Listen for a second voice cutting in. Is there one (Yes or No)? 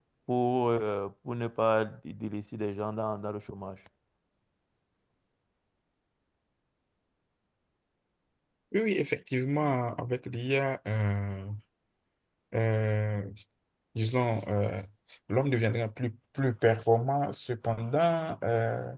No